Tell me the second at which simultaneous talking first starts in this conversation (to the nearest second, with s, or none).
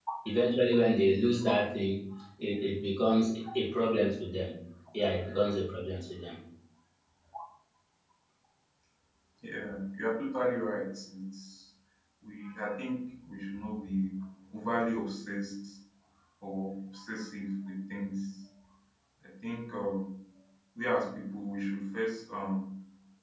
none